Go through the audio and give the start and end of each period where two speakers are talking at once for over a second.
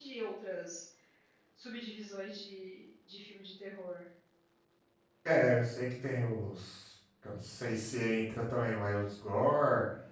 none

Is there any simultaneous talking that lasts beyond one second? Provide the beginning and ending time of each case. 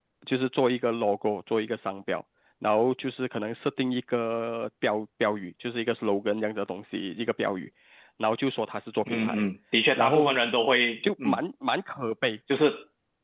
none

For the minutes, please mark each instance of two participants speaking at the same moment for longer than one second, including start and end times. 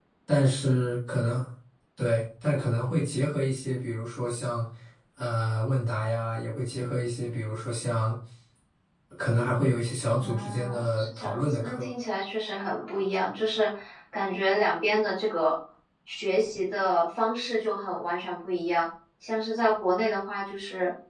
10.1-11.9

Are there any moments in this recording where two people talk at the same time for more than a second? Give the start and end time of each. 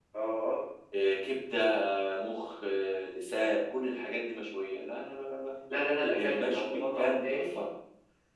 6.2-7.6

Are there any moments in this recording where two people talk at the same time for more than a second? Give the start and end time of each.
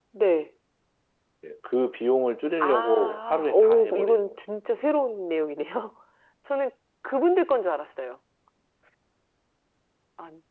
2.6-4.4

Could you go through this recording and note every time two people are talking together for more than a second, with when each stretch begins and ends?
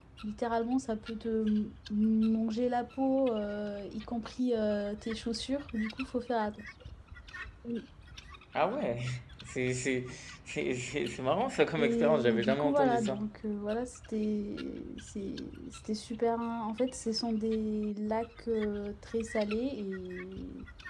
11.8-13.2

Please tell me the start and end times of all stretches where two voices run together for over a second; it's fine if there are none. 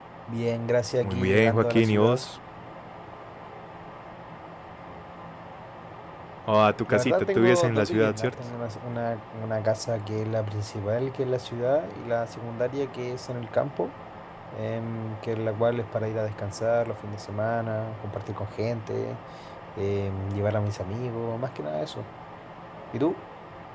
1.0-2.2, 6.9-8.3

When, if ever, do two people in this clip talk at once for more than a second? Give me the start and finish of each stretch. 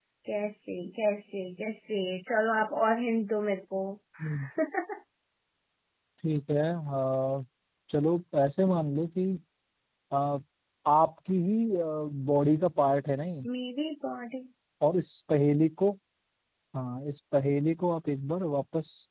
none

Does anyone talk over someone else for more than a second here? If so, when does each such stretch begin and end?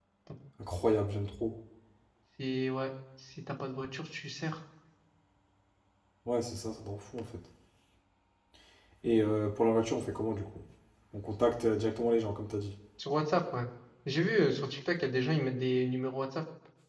none

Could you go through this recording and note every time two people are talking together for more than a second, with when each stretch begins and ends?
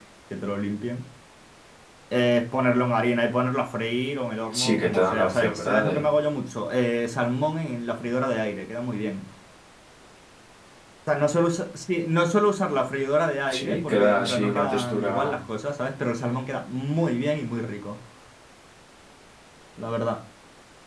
4.5-6.2, 13.5-15.2

